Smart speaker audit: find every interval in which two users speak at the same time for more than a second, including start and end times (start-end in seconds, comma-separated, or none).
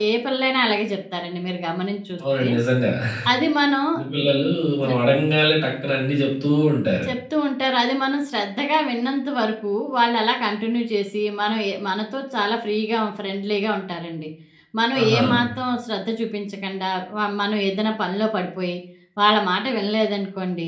none